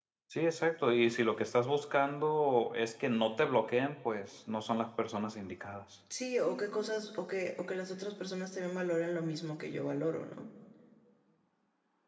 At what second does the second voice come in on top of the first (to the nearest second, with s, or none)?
none